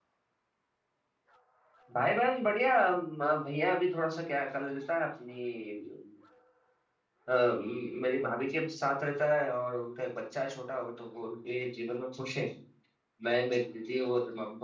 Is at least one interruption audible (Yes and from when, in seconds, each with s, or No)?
No